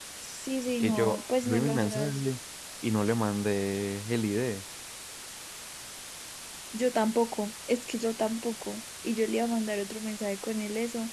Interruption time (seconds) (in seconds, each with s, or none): 0.8 s